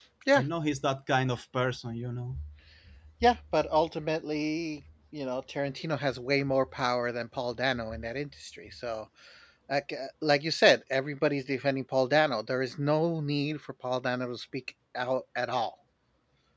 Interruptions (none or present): none